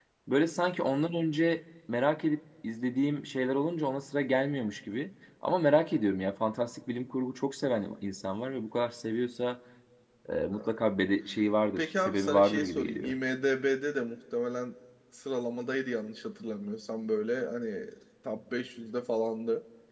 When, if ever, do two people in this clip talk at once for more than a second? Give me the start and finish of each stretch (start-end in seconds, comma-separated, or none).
11.8-13.1